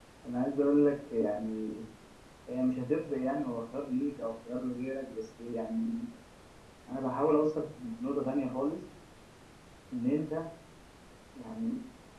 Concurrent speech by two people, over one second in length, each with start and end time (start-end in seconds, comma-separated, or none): none